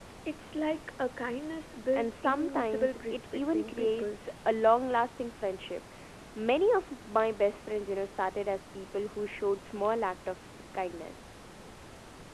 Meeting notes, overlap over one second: present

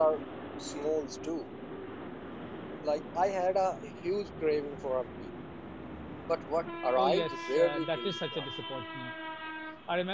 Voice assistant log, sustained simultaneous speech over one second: present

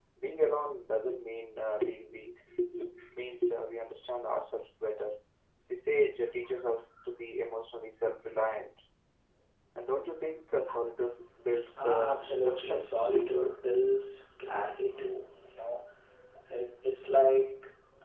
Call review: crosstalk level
present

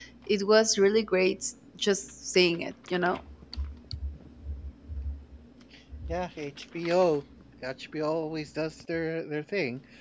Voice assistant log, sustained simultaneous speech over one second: none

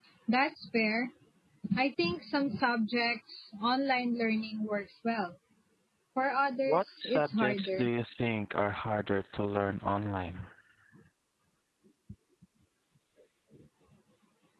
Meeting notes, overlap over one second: present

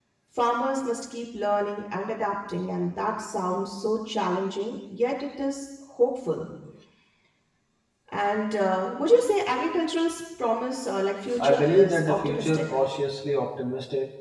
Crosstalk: present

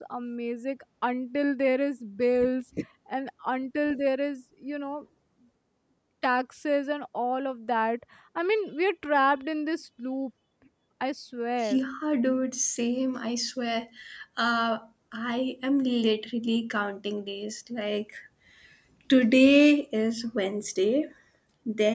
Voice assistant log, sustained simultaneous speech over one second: none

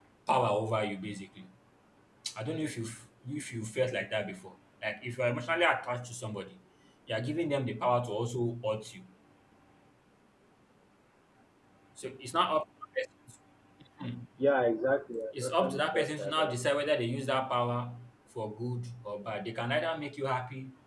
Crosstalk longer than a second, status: present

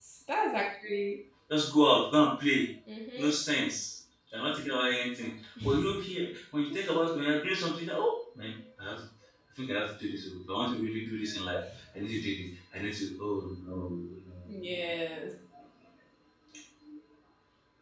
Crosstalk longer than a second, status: none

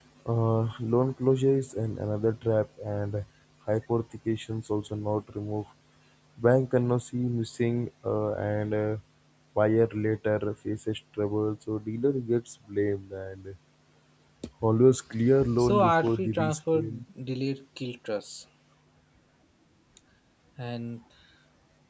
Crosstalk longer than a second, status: present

